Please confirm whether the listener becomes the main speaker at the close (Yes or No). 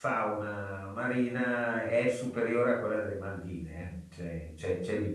No